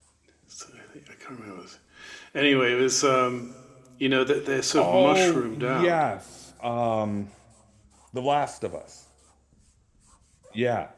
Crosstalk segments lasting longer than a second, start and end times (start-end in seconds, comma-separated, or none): 4.8-6.0